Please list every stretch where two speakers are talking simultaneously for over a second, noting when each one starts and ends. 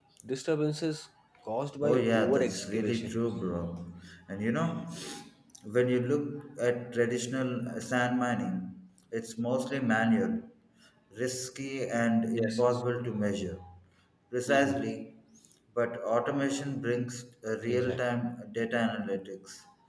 1.8-3.2

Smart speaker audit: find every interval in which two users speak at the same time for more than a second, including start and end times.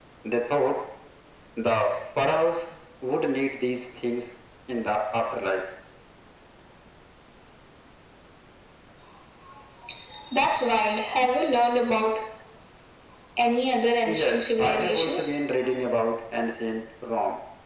14.1-15.4

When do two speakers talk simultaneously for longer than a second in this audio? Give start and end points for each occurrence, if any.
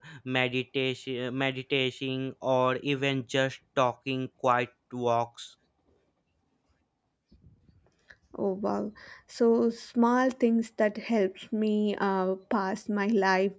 none

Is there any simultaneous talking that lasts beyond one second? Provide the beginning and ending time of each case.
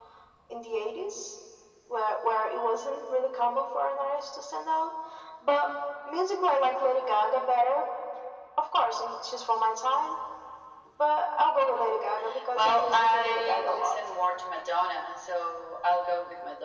12.6-14.0

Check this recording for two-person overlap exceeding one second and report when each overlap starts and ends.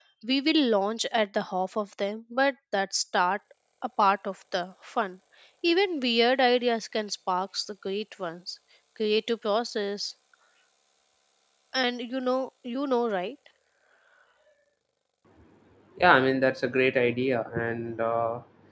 none

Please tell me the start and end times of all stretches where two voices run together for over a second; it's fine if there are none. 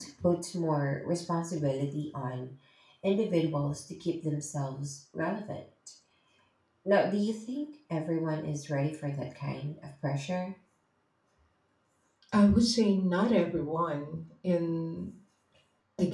none

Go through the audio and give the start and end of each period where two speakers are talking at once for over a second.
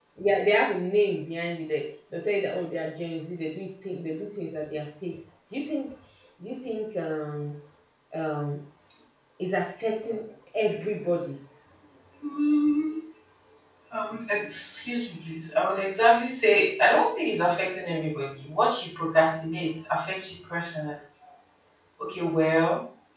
none

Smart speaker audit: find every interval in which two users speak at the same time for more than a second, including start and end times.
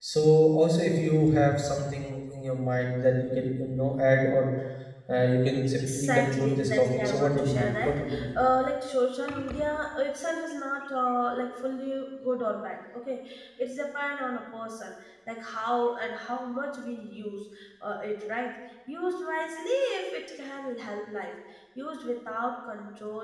5.7-8.3

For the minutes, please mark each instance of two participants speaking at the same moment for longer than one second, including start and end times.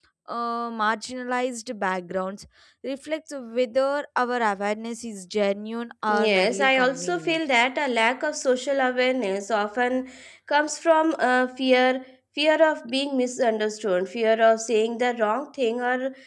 6.2-7.4

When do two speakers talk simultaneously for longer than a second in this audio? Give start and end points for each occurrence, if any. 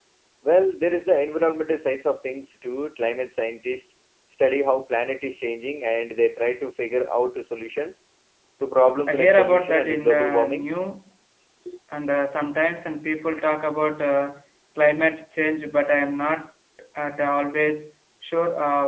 9.1-10.7

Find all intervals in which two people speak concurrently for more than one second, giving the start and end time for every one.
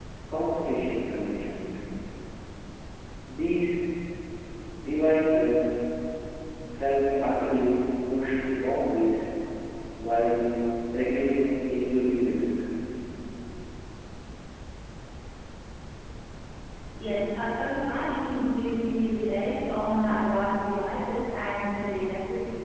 none

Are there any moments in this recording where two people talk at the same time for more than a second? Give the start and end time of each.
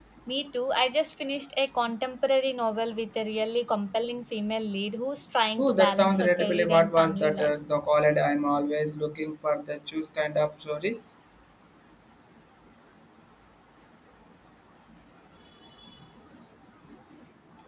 5.6-7.5

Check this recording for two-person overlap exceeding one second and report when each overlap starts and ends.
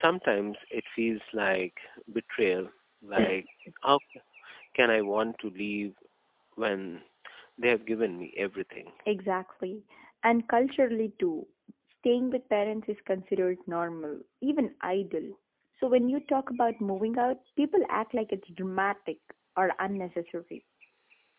none

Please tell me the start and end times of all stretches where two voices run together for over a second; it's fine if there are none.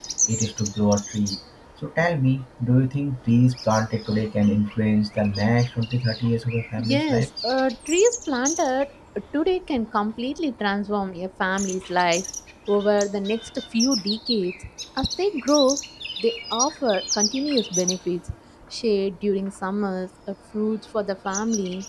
none

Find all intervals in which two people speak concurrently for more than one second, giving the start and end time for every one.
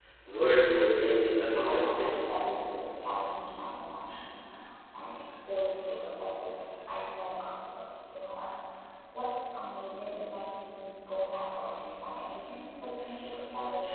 0.7-2.2

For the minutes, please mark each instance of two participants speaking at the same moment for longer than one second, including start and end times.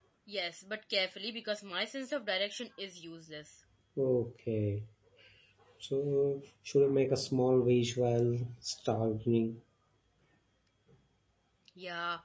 none

